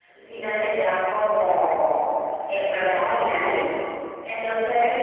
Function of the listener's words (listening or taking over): listening